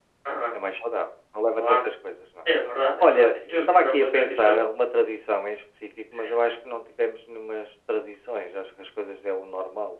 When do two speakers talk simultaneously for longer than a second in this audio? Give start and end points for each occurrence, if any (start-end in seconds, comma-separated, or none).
3.0-4.6